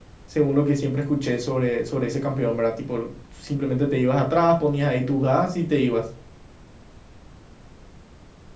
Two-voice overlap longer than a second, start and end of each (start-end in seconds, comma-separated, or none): none